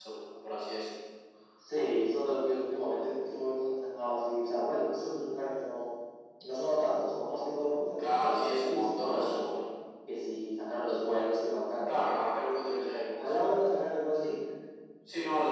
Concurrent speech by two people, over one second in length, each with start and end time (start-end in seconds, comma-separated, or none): 8.0-9.5